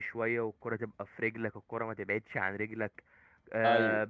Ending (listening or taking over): listening